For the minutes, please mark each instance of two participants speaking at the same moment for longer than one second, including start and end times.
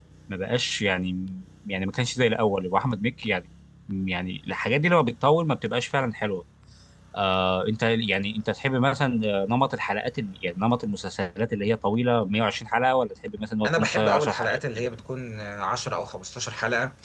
13.7-14.9

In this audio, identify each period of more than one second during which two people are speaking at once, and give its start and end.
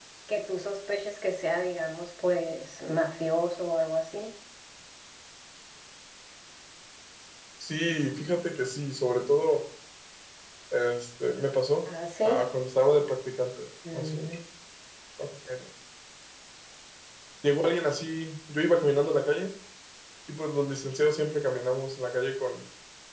none

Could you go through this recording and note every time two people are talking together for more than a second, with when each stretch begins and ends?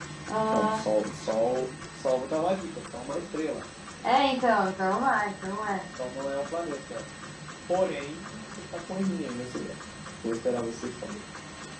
none

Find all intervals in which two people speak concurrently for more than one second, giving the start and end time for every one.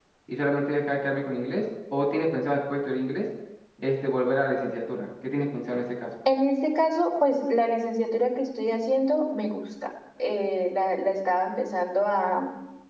none

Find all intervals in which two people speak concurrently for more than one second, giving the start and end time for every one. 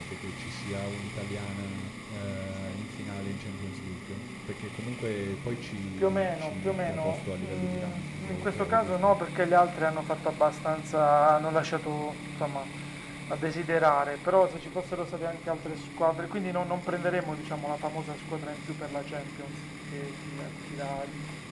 6.0-9.1

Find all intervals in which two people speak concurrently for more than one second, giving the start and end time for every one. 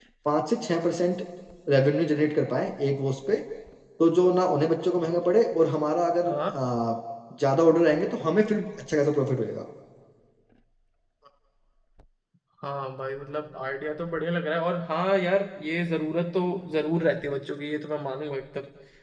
none

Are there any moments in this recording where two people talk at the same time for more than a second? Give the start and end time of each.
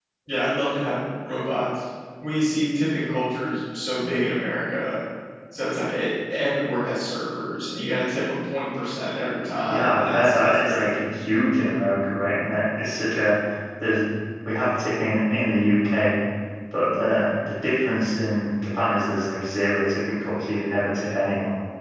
9.7-11.0

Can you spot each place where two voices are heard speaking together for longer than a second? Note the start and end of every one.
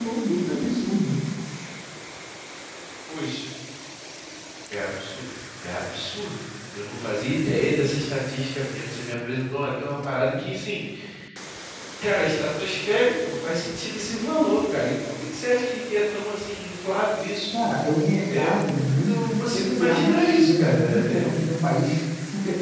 18.3-21.3

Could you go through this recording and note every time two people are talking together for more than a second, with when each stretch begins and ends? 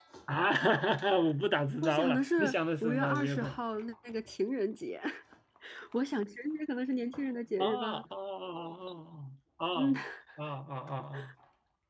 1.8-3.6

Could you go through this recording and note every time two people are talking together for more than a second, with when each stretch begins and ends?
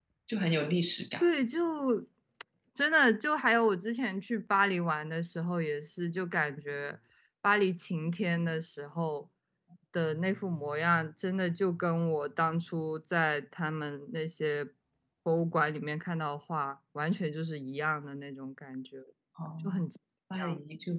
none

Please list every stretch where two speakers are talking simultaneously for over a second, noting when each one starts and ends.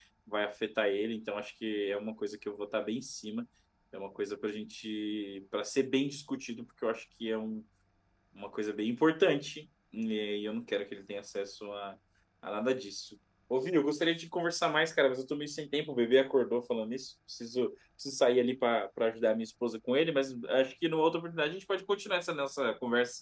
none

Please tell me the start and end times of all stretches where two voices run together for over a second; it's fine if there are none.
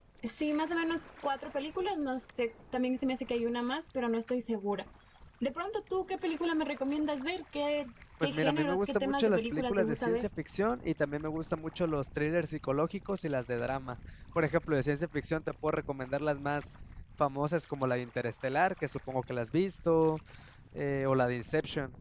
8.2-10.2

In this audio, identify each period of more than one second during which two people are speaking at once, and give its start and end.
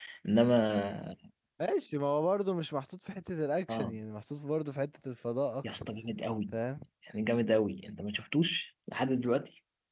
none

